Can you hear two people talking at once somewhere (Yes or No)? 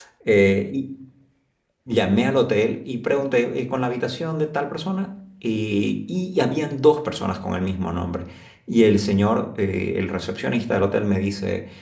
No